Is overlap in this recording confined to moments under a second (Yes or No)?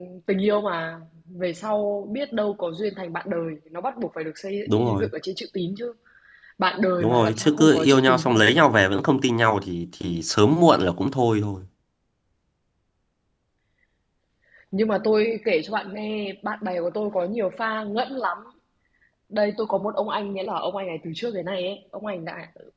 No